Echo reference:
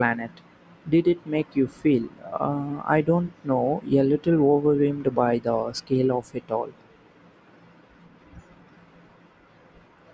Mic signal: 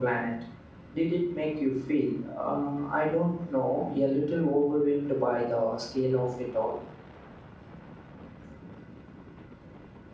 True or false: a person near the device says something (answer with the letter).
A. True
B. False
B